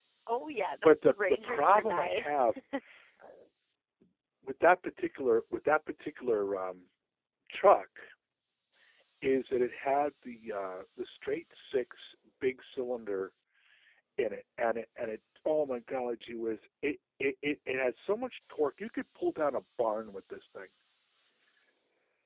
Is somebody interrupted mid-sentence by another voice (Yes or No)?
Yes